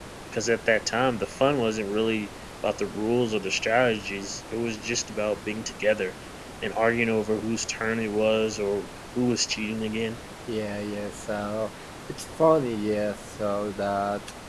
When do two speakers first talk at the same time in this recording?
none

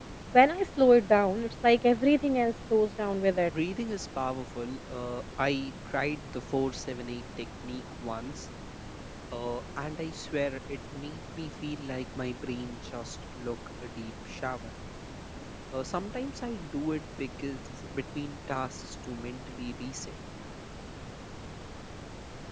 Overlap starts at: none

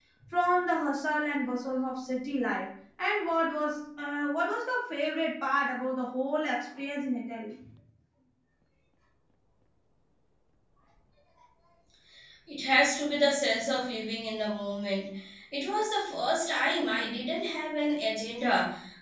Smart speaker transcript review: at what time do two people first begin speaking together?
none

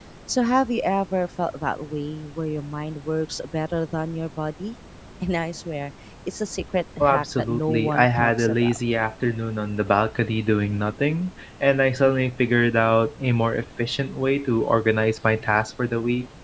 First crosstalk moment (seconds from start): 7.0 s

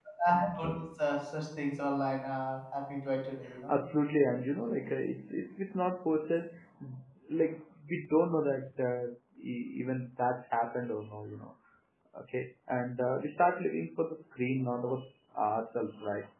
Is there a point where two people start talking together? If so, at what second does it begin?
none

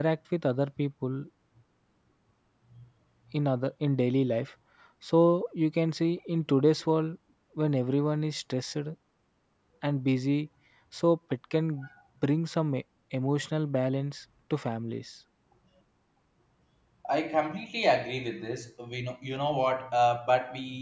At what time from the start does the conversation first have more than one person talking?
none

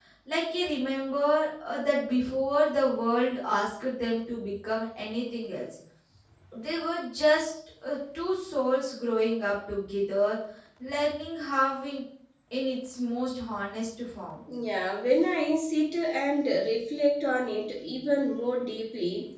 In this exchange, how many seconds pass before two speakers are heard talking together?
none

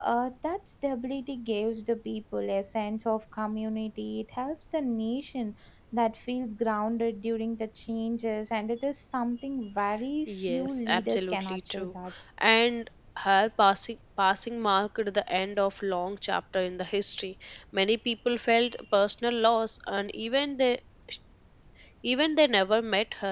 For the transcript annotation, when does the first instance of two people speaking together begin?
10.3 s

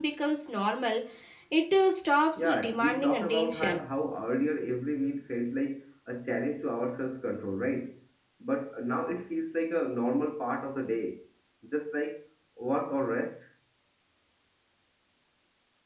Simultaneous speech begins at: 2.4 s

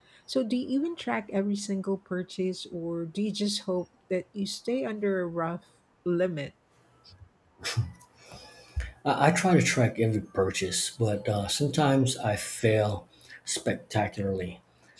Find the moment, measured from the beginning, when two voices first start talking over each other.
none

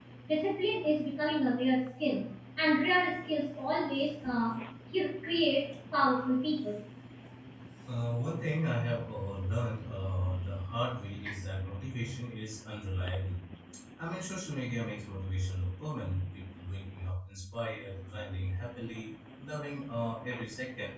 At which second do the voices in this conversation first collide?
none

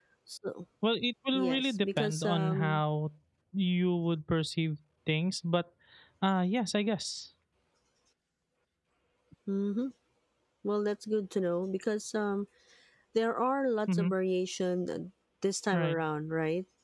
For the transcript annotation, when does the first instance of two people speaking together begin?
1.3 s

